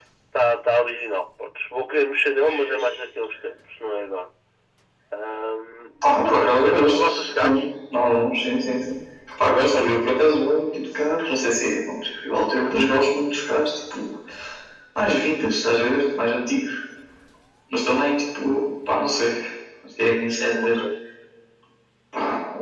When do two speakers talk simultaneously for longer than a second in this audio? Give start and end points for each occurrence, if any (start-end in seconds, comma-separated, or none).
6.0-7.6